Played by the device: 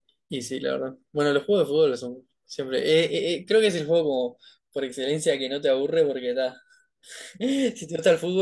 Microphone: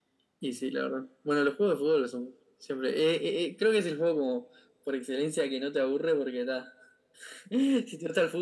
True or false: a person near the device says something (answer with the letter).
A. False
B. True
A